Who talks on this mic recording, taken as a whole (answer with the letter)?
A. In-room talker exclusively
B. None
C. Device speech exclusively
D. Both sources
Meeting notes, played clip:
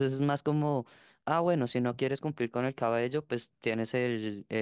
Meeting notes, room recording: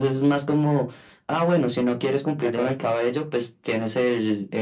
D